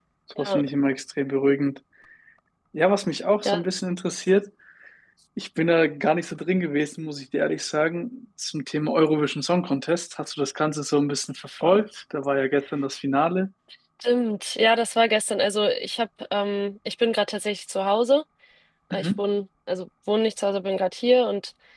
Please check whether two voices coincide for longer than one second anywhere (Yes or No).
No